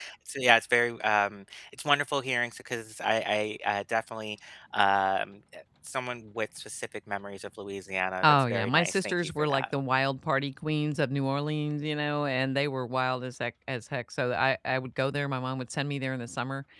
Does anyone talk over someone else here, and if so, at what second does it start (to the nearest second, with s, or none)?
8 s